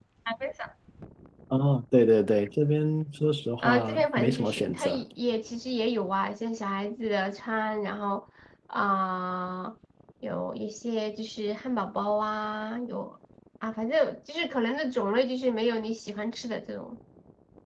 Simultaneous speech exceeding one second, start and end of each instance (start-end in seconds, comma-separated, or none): 3.6-5.0